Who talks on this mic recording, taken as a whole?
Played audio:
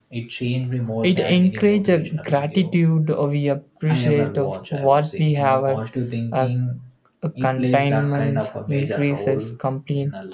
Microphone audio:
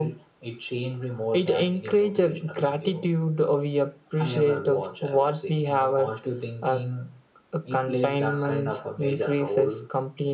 echo only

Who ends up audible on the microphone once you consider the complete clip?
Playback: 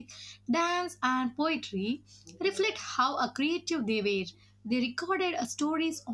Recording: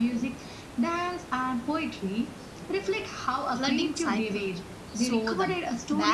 both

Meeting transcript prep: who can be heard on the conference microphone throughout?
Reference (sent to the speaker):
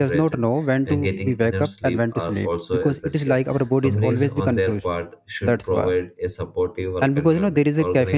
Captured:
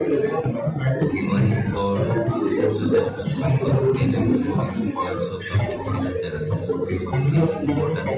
both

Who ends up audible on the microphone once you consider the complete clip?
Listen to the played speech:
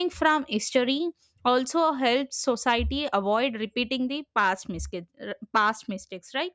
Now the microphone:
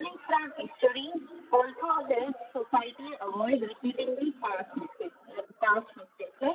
echo only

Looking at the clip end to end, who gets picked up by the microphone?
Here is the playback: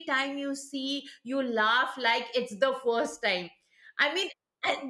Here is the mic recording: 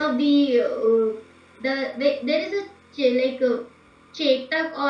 user only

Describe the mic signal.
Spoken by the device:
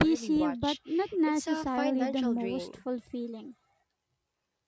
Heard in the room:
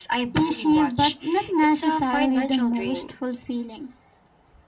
echo only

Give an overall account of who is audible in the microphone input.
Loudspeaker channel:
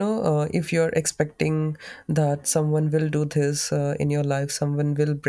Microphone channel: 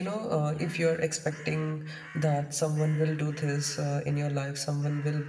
echo only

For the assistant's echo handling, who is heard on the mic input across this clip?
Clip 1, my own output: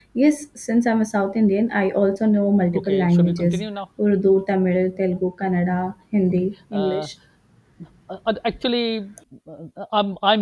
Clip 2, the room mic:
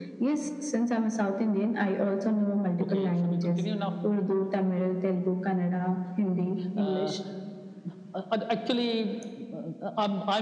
echo only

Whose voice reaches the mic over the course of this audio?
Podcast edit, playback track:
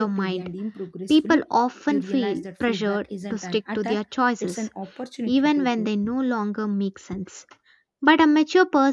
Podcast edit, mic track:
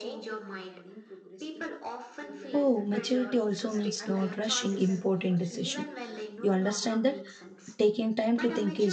both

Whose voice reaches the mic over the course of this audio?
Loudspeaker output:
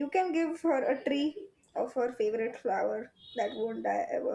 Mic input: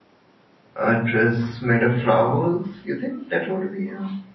user only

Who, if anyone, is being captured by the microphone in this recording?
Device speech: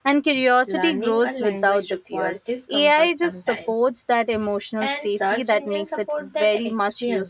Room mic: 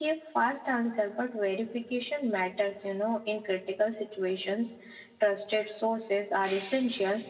user only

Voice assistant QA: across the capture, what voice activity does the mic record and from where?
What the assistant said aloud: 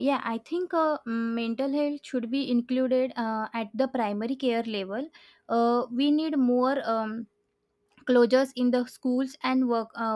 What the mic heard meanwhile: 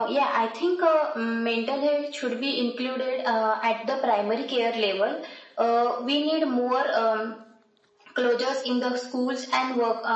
echo only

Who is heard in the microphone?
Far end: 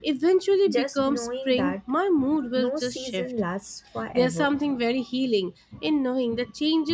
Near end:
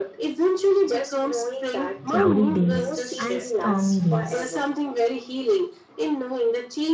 both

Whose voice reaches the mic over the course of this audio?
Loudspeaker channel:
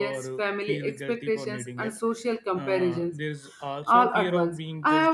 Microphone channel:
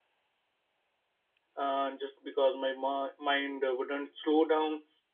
user only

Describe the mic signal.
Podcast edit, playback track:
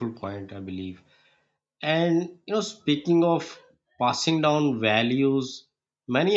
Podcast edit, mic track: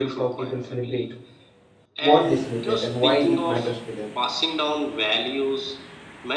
both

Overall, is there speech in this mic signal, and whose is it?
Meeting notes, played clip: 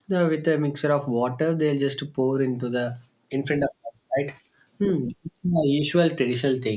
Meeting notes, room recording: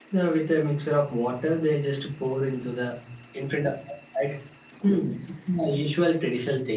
echo only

